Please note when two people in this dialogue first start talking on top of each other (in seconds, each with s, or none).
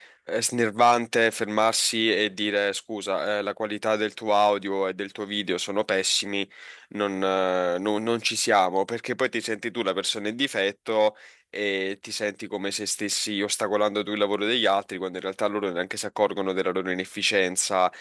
none